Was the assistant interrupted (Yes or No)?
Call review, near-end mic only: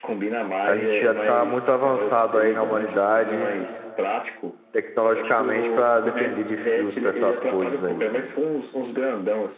Yes